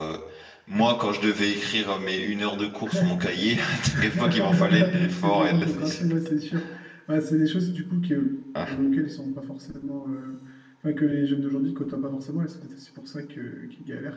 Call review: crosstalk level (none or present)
present